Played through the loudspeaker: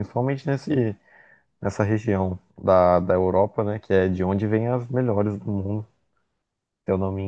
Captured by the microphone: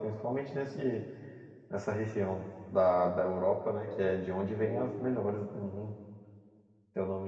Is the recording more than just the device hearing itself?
Yes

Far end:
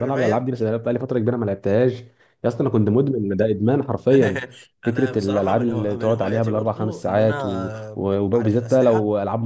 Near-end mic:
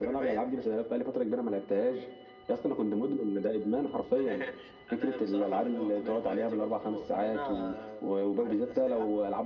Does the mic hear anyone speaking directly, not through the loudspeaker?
No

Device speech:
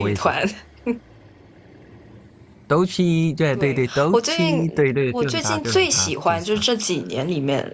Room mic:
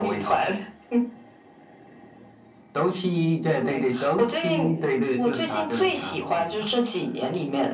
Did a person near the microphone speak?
No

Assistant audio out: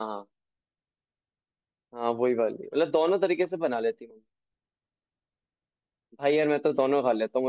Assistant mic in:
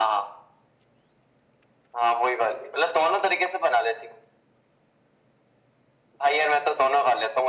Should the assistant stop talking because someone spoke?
No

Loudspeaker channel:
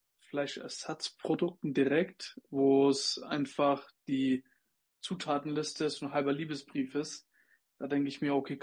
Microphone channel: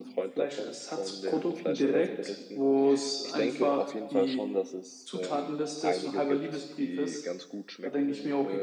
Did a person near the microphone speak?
Yes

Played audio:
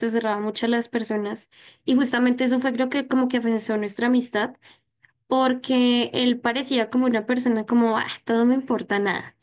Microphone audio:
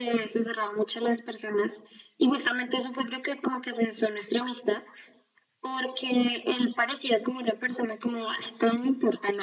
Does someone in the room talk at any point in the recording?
No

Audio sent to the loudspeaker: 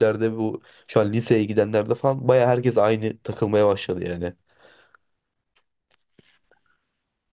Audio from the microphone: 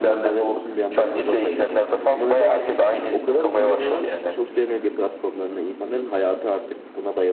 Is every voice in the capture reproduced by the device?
No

